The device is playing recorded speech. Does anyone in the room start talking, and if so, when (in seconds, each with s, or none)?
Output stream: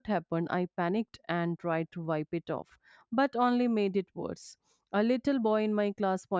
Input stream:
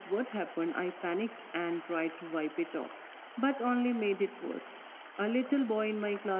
none